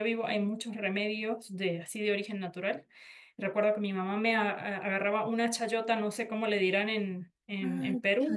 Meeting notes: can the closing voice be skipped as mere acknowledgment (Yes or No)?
No